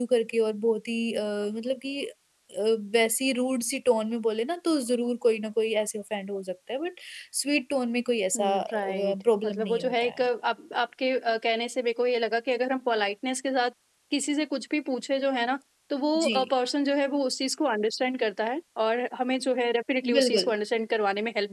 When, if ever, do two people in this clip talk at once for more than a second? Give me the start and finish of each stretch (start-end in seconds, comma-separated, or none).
8.4-10.1